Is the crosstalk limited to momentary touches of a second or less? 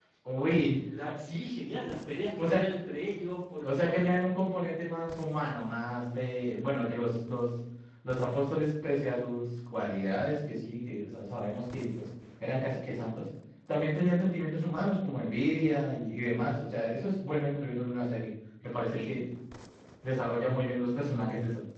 Yes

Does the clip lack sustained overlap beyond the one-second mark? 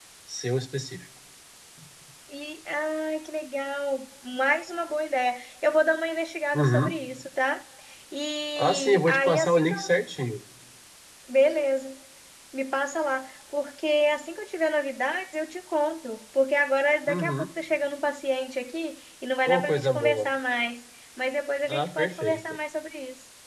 No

